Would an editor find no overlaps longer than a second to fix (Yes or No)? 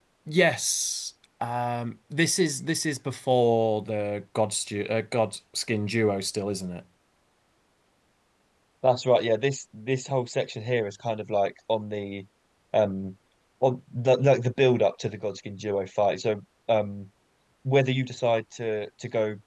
Yes